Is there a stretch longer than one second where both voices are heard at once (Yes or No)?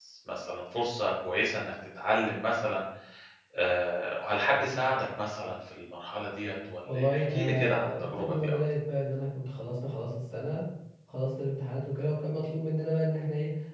Yes